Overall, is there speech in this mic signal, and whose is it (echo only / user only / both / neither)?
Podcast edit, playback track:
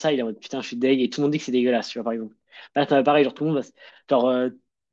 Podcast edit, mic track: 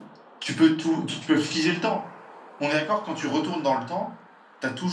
user only